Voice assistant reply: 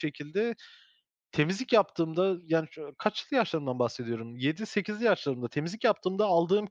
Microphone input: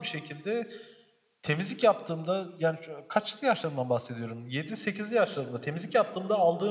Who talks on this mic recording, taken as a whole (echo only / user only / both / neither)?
echo only